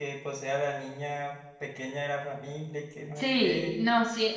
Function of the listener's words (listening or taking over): taking over